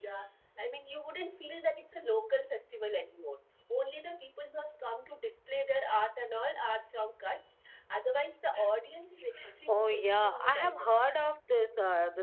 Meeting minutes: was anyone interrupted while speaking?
Yes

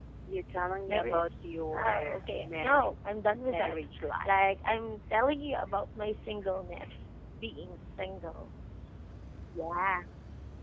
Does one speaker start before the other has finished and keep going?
Yes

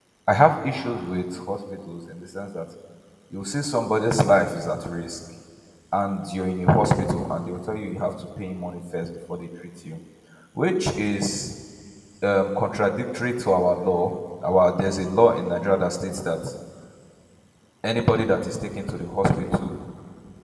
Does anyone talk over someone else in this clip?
No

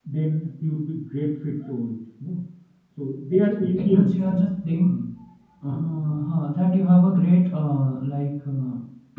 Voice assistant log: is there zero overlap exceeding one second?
Yes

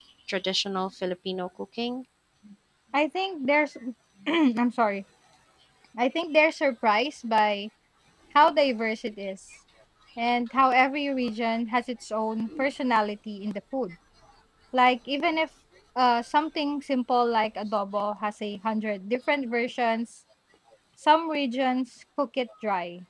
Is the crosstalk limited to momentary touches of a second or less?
Yes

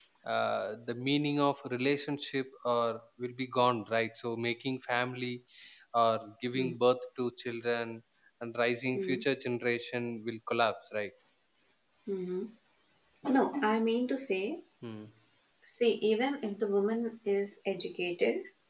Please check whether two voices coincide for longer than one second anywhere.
No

